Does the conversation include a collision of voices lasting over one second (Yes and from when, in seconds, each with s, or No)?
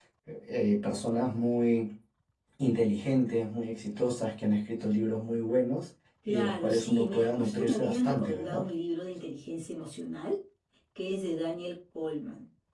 Yes, from 6.2 s